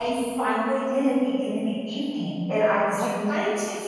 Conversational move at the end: listening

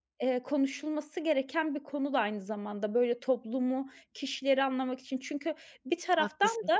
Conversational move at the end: listening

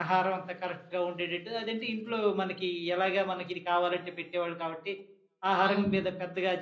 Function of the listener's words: listening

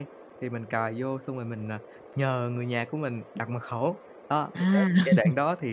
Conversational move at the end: listening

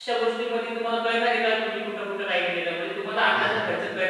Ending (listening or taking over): listening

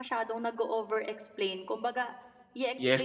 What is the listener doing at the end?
taking over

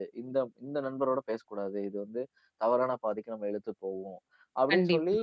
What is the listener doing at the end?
listening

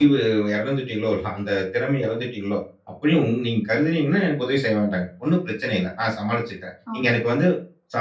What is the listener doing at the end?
listening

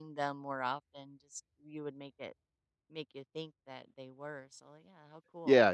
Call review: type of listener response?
taking over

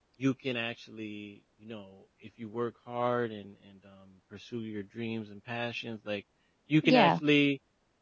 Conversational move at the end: listening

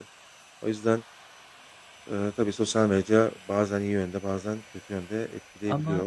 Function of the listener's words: taking over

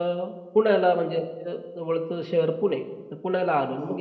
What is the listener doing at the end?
listening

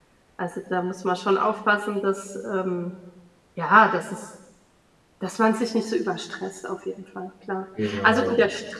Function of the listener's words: listening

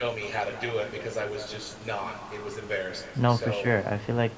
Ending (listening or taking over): taking over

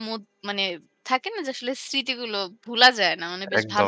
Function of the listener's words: taking over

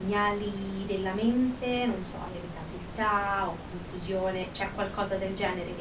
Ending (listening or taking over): listening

